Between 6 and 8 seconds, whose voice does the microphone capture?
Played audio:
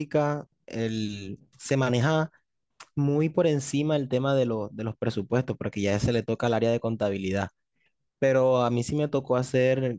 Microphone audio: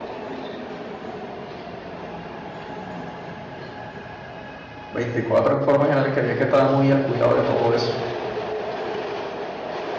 user only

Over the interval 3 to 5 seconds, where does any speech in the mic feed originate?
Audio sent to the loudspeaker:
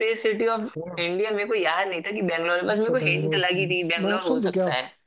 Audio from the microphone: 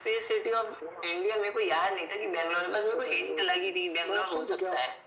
echo only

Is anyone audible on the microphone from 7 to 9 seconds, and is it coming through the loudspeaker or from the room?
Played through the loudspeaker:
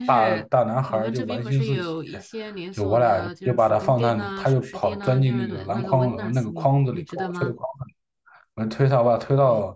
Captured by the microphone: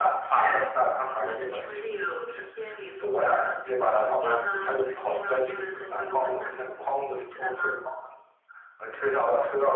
echo only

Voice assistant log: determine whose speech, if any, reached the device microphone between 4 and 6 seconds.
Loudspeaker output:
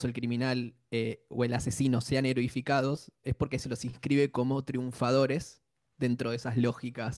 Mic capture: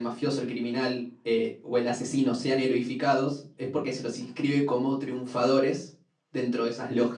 echo only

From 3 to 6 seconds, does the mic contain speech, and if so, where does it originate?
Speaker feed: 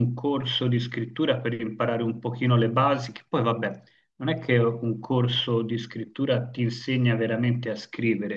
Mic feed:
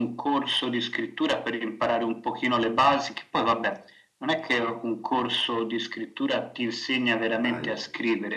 echo only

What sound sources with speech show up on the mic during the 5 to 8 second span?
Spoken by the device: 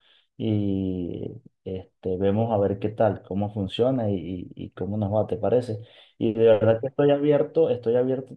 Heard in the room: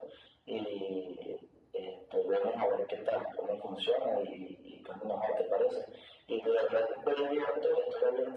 echo only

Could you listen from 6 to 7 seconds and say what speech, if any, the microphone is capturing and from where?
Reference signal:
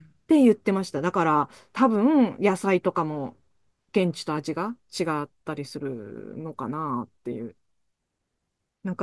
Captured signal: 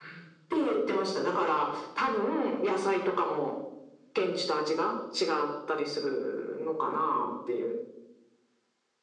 echo only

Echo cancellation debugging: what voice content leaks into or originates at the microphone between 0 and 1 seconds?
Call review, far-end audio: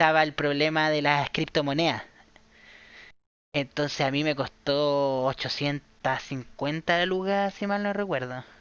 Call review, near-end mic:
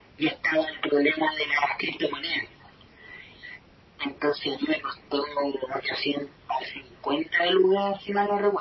echo only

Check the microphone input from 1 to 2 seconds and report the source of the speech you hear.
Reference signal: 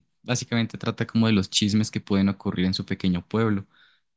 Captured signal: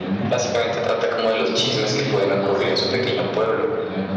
both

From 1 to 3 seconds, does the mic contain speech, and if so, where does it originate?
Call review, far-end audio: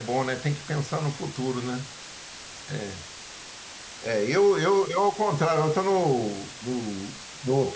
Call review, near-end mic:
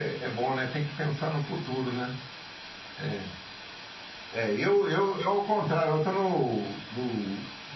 echo only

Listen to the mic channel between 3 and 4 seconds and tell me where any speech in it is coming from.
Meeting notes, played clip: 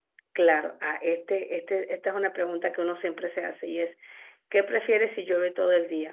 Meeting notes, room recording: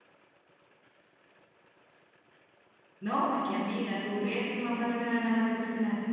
user only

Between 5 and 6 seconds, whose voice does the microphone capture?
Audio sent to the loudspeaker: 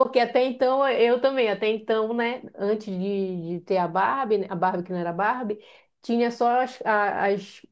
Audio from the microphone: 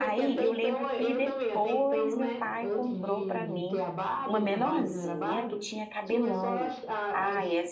both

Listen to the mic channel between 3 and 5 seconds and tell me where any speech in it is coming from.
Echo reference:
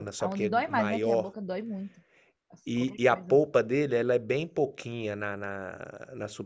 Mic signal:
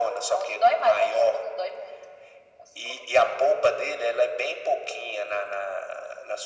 echo only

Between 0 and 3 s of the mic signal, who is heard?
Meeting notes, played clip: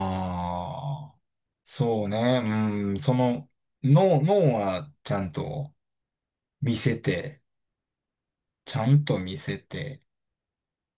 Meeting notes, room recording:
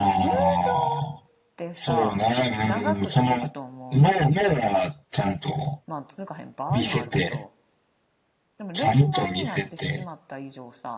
both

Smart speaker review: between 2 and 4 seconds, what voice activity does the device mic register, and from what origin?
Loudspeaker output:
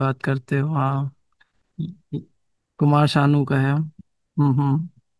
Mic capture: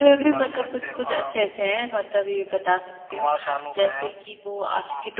both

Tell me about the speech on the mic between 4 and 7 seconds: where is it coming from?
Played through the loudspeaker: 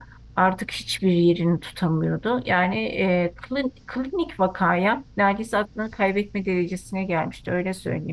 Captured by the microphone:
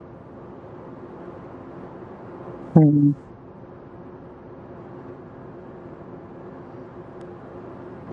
neither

